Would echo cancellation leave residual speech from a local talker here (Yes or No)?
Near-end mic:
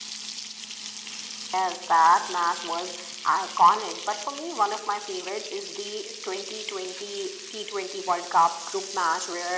No